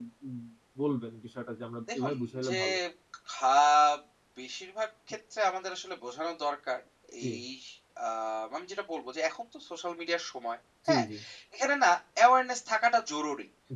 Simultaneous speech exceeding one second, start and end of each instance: none

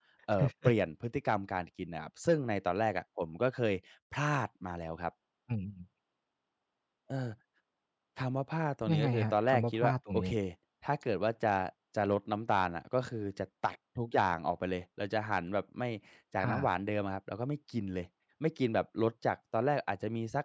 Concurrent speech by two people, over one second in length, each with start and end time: 8.9-10.3

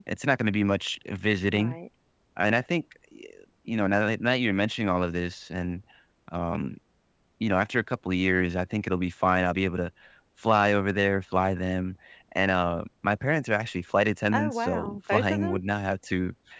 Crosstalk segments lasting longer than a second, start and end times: 14.3-15.6

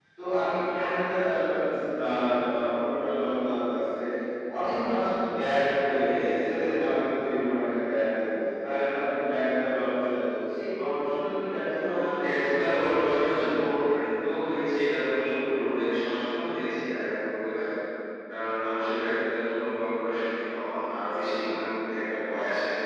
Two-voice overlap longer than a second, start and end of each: 11.8-13.9

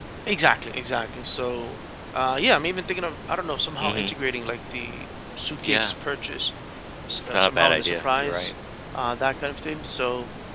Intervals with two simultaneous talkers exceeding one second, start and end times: 7.3-8.5

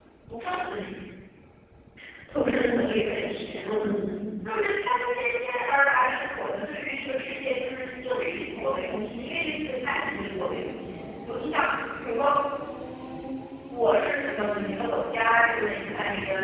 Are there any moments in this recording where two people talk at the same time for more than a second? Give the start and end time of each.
none

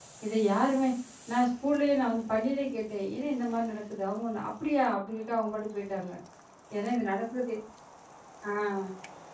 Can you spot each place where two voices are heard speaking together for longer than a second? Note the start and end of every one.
none

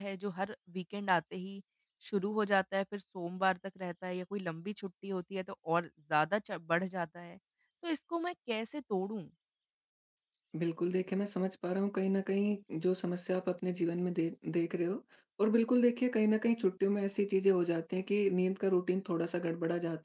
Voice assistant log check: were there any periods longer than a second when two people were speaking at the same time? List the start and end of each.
none

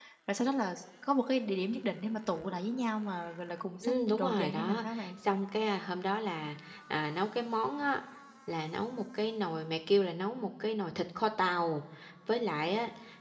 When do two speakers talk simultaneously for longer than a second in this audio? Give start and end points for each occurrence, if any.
3.8-5.1

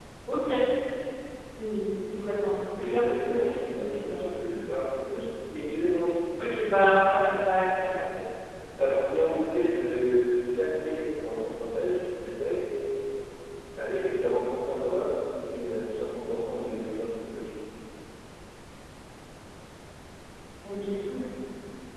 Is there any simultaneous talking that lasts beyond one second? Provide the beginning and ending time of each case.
2.8-4.3

